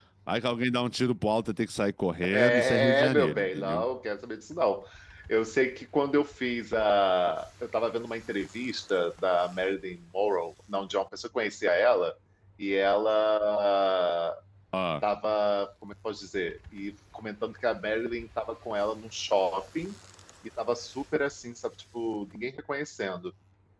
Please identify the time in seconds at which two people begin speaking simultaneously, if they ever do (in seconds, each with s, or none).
2.2 s